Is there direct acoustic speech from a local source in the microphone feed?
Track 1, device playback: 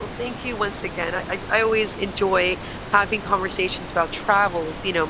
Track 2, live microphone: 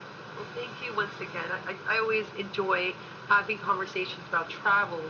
No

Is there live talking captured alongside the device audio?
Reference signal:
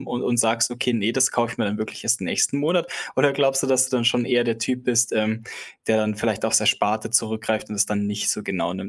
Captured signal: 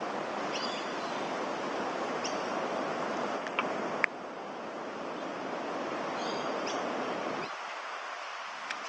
No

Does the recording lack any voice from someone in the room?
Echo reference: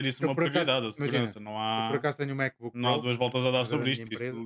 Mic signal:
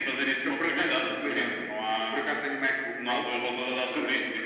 Yes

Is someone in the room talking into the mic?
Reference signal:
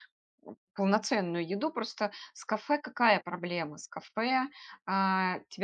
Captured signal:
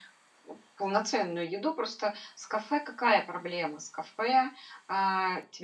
No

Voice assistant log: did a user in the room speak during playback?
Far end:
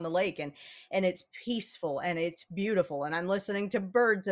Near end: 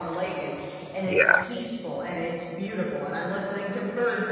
Yes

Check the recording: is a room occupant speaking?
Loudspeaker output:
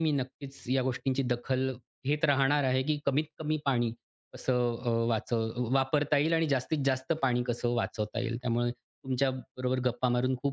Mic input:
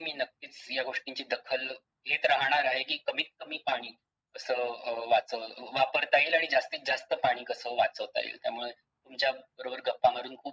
No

